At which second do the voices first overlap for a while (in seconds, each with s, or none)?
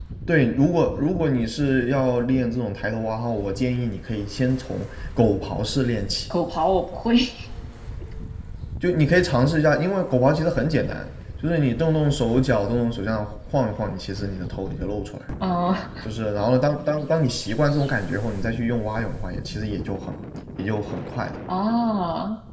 none